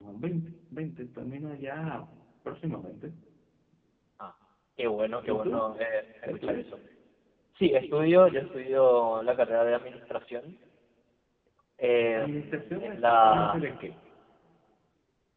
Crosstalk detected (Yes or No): Yes